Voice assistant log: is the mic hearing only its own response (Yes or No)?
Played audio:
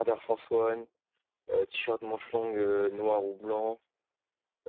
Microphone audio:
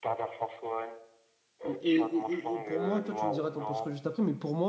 No